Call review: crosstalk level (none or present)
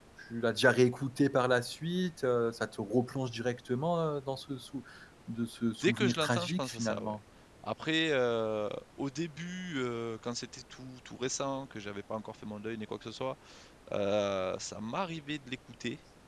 present